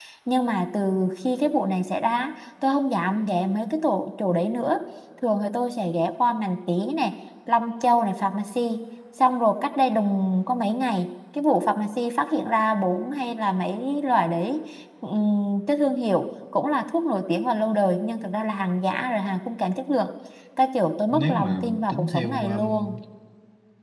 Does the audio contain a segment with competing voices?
Yes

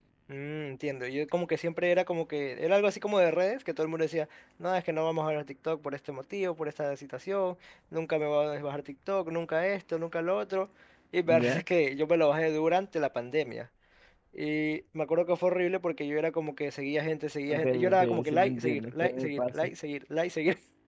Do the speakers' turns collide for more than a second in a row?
Yes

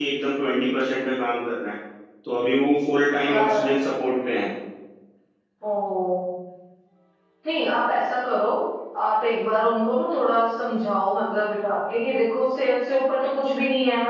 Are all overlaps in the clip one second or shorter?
Yes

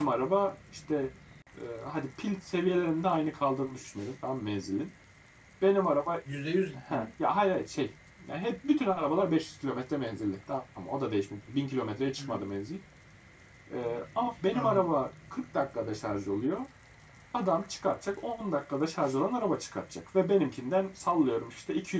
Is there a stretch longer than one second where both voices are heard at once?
No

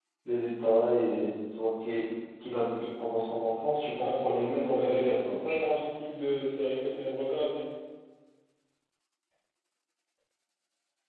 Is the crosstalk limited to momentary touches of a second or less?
No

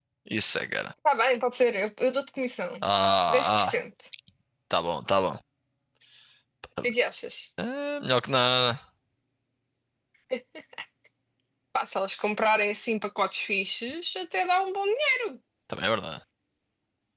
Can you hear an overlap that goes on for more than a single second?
No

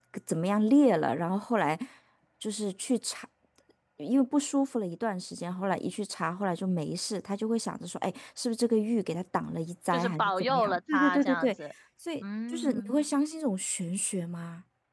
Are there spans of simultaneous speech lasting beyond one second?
Yes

